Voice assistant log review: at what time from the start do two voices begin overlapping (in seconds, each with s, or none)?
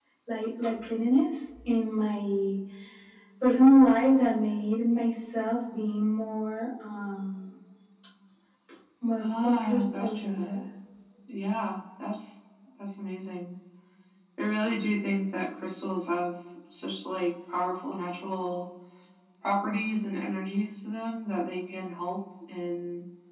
9.2 s